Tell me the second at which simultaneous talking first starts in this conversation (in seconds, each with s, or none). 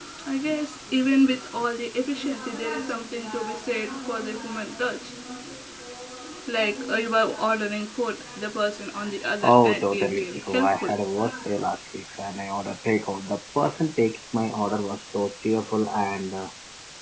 9.4 s